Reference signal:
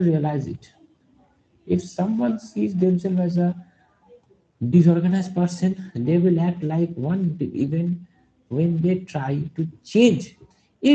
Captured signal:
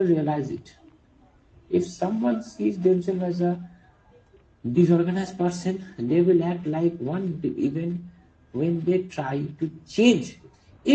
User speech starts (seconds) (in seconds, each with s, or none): none